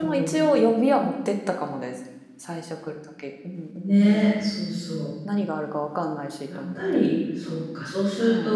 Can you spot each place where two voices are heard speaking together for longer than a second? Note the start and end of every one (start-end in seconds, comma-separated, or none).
none